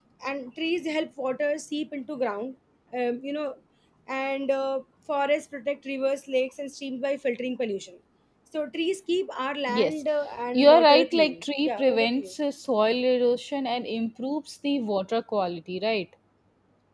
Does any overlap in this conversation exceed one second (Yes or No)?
Yes